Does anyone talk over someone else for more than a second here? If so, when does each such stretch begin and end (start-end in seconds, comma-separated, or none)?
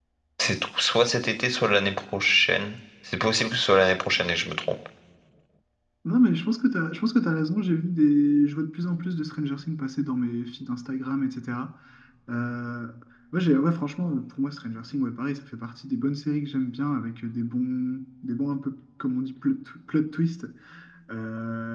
none